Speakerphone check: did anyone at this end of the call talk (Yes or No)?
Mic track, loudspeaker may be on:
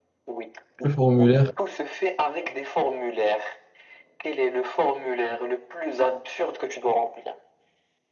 Yes